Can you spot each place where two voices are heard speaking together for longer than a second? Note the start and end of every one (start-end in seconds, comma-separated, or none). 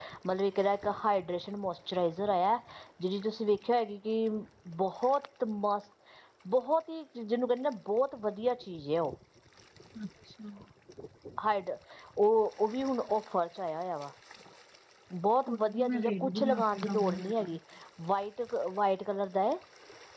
15.5-17.6